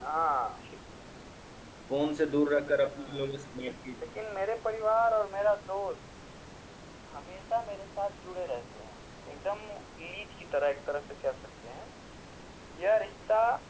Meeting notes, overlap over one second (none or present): none